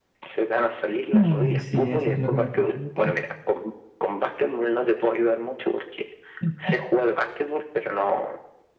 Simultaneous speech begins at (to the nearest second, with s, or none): 1 s